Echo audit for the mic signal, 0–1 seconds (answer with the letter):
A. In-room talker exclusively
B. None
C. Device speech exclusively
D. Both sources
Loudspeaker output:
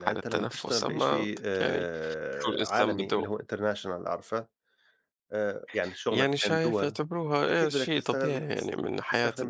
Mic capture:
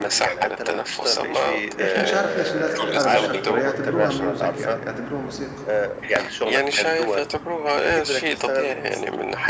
C